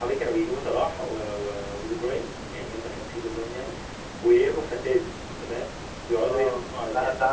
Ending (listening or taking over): taking over